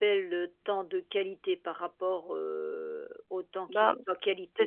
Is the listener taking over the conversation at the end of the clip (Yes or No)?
Yes